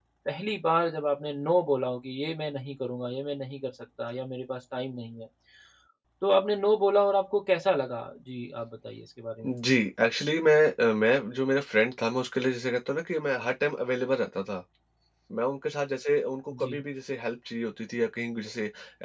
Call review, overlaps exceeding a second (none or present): none